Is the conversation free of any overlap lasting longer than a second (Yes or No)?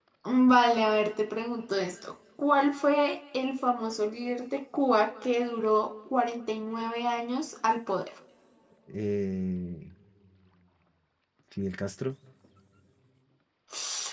Yes